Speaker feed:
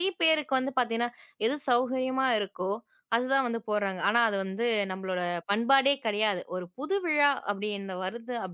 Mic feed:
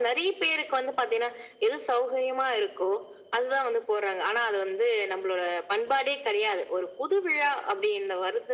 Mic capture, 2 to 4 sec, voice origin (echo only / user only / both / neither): echo only